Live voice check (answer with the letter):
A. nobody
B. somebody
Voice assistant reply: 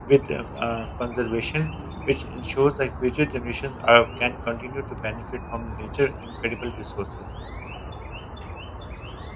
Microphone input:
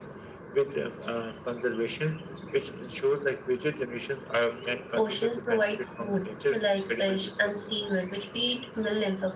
B